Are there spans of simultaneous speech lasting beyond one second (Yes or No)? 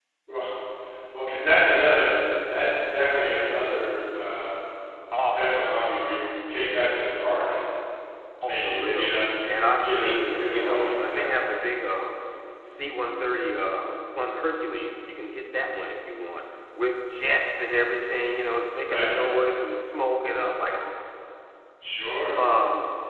Yes